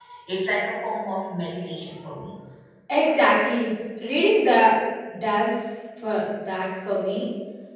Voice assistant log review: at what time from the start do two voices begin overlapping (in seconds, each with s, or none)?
none